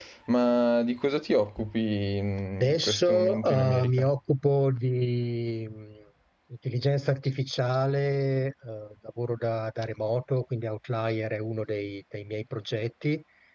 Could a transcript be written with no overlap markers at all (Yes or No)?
No